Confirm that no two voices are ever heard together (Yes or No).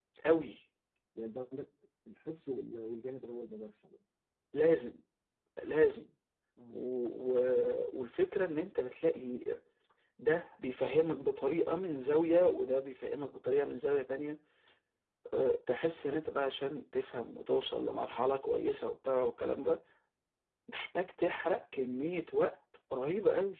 Yes